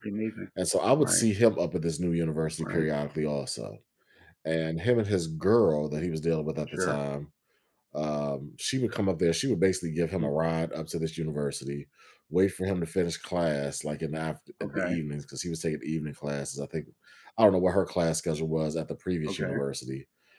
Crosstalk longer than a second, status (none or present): none